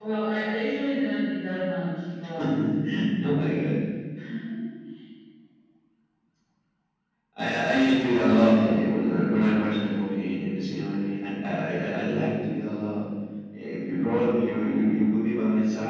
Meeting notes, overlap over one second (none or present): none